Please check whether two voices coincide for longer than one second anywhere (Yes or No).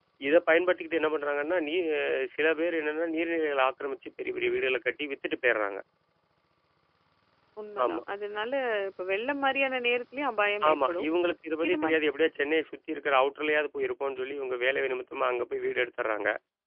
No